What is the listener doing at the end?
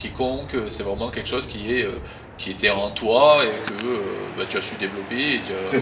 taking over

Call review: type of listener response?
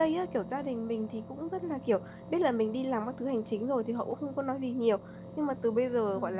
listening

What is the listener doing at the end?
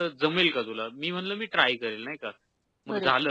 listening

